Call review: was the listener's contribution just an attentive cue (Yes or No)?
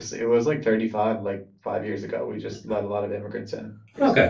No